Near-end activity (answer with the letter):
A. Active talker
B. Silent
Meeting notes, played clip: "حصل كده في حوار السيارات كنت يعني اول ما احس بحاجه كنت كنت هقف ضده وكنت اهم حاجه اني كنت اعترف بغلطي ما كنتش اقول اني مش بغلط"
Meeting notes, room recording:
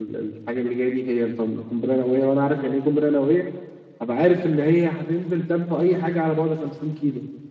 A